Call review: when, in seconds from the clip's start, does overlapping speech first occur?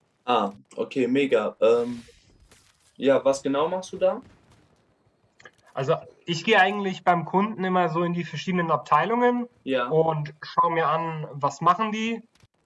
none

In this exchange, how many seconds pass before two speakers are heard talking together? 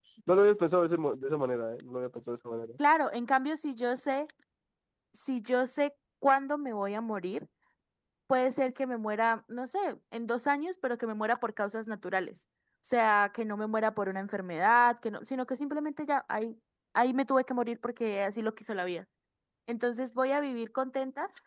none

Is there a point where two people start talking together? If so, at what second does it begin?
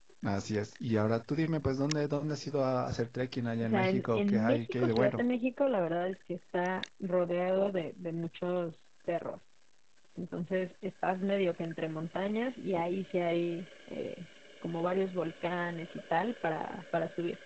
4 s

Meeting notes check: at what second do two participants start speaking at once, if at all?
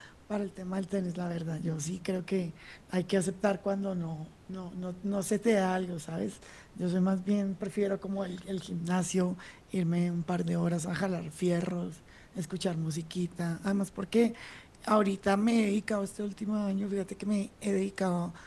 none

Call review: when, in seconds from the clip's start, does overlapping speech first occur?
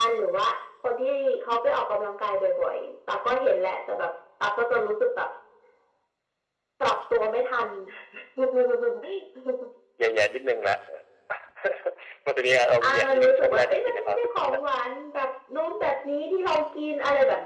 13 s

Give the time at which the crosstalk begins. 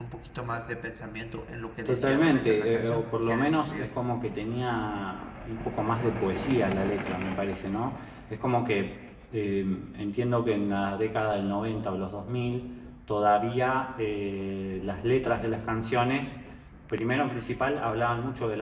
2 s

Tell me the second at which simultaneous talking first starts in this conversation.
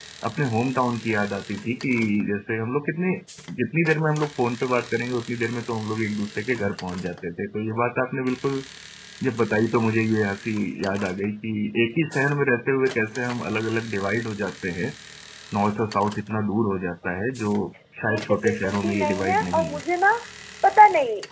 18 s

